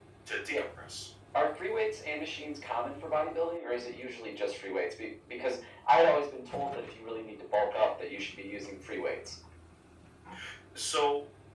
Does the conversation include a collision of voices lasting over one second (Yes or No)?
No